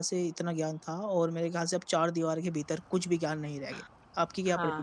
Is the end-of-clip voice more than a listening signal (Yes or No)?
Yes